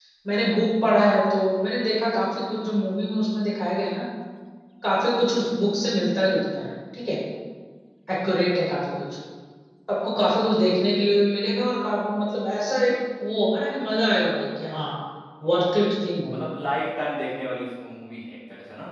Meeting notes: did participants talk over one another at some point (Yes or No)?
No